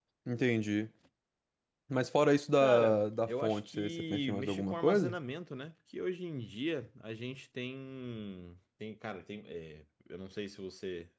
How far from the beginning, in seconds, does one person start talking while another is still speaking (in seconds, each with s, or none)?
2.6 s